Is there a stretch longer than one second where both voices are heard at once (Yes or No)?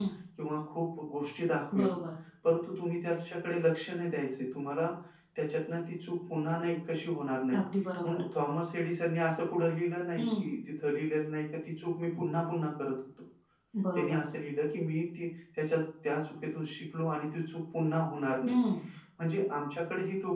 No